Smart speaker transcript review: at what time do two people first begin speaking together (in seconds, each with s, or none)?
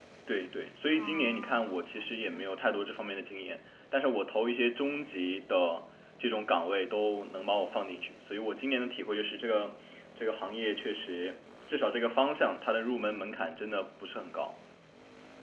0.9 s